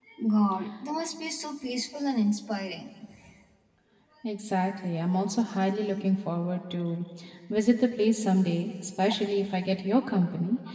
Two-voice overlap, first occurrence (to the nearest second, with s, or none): none